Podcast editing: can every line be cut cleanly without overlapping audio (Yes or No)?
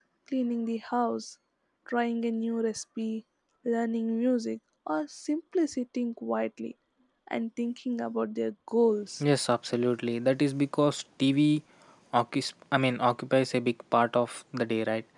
Yes